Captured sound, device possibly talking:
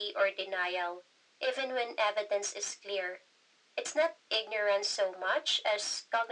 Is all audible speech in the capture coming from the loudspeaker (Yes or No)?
Yes